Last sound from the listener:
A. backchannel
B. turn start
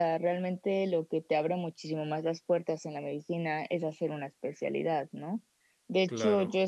A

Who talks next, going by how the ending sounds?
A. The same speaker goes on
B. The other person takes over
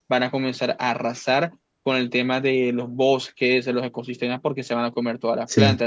A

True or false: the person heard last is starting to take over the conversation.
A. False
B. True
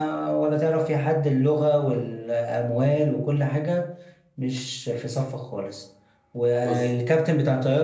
A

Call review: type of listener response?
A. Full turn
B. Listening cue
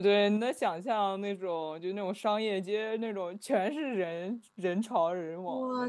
A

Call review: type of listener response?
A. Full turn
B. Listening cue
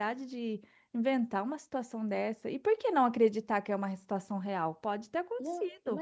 A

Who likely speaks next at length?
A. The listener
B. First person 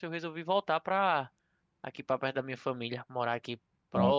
B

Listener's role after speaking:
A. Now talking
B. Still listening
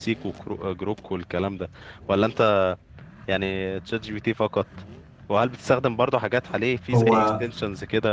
B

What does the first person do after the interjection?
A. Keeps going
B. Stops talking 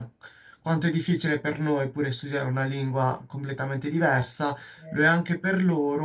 A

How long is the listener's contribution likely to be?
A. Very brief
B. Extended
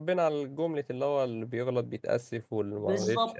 B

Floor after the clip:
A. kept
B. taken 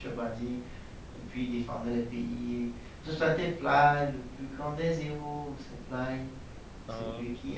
A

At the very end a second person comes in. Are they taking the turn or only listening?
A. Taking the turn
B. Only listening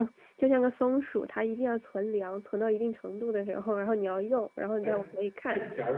A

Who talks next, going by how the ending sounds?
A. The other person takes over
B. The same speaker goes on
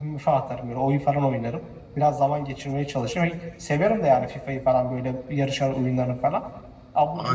A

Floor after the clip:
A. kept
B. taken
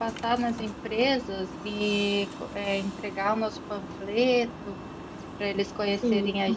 A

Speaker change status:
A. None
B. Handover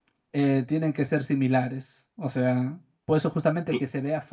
A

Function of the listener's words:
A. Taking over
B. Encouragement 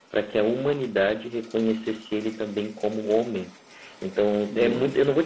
B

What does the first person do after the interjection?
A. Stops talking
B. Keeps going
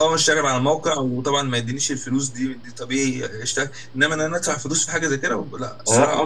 A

